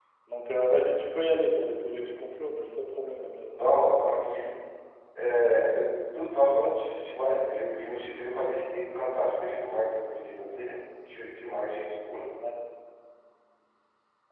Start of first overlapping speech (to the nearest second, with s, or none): none